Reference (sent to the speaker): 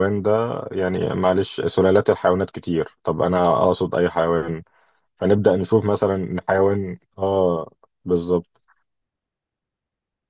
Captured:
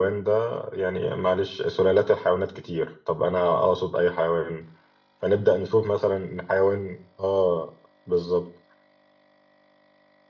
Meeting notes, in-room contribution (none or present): none